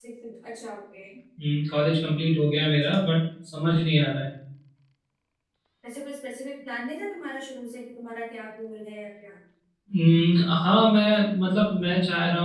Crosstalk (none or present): none